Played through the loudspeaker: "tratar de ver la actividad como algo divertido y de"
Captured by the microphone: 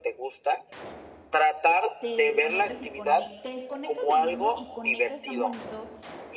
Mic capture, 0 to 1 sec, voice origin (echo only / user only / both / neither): echo only